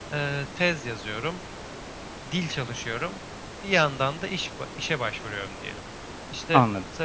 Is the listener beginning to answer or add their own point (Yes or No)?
No